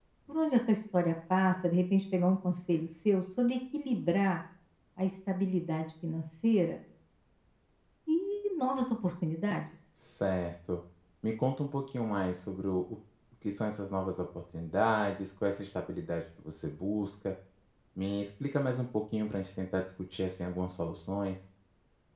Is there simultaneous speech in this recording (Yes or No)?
No